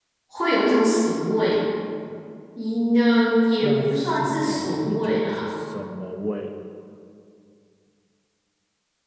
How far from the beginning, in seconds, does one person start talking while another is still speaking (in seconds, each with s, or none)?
3.6 s